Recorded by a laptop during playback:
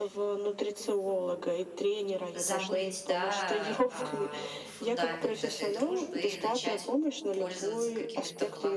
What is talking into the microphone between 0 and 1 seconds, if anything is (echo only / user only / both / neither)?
echo only